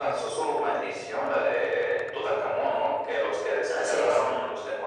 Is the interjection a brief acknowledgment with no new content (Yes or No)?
Yes